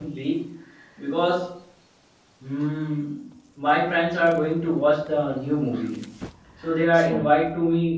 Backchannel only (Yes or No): Yes